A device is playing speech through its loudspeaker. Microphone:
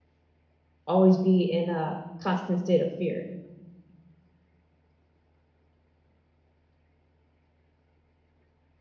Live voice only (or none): always be in a constant state of fear.